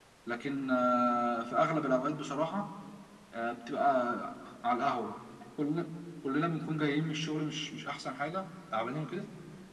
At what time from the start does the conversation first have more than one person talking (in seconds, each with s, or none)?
none